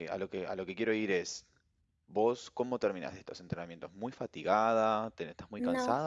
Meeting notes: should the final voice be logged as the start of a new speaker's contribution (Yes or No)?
No